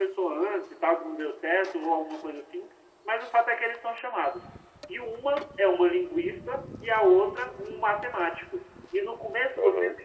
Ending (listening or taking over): listening